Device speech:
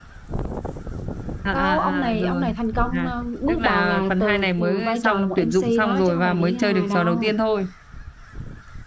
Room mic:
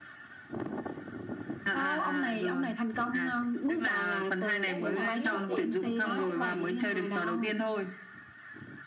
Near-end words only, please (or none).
cái cái nào kiếm ra tiền thì mình cứ xông vào